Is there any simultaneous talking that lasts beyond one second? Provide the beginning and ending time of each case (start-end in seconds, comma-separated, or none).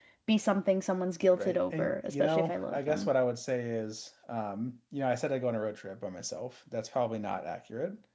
1.3-3.1